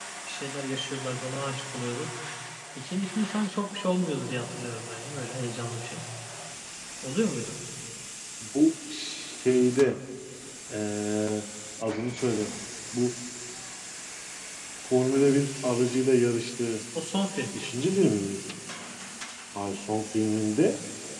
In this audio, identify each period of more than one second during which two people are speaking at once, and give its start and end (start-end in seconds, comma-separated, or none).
none